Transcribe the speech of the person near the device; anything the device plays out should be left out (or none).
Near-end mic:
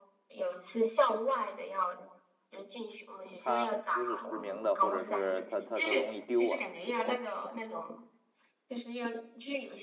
它不是实名的，或者是它它它容易丢啊。